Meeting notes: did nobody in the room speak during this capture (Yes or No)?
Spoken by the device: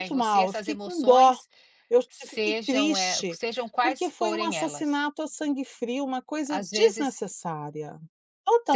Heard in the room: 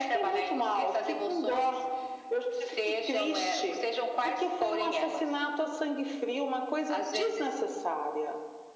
Yes